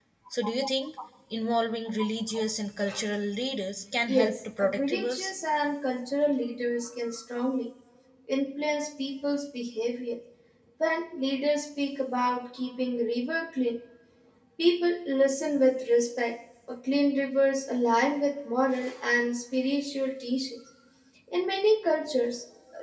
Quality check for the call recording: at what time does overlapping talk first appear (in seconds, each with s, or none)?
4.1 s